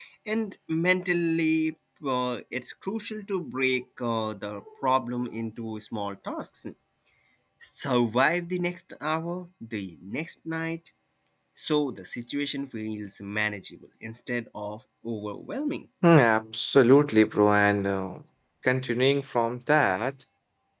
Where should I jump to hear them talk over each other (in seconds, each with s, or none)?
none